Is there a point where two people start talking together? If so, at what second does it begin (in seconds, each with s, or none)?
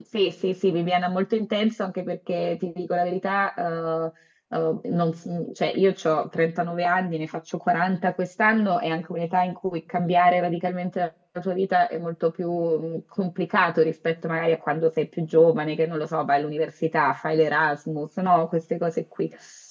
none